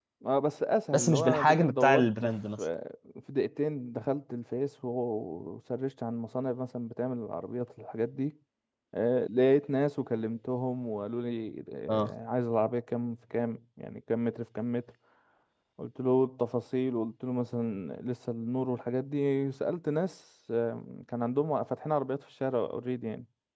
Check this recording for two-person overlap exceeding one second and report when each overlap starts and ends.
0.9-2.6

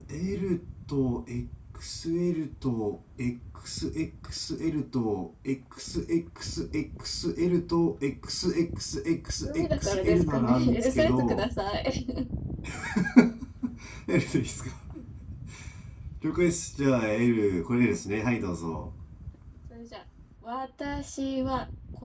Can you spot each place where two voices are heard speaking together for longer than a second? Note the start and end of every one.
9.4-11.4

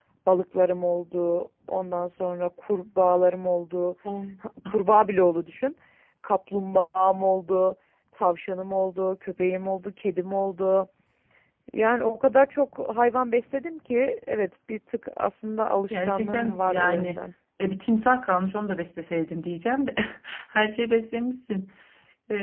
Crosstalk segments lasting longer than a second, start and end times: 15.9-17.2

